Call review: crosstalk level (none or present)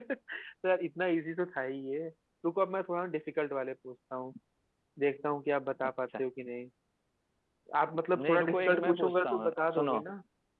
present